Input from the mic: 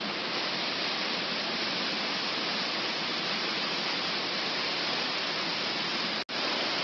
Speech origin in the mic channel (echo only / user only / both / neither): neither